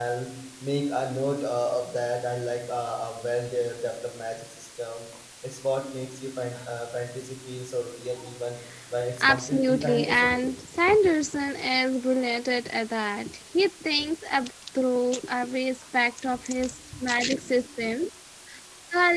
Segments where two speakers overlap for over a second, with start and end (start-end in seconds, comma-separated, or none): 9.2-10.4